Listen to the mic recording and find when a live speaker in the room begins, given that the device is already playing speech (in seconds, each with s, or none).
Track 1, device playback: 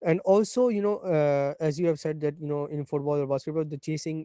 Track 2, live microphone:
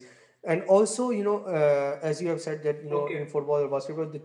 2.9 s